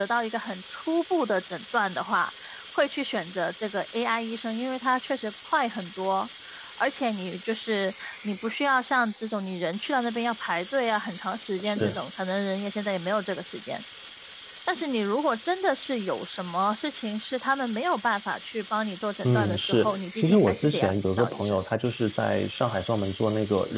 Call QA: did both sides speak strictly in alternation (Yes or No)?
No